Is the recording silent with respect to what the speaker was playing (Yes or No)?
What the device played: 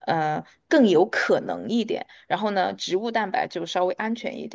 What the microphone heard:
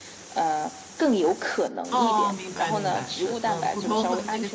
No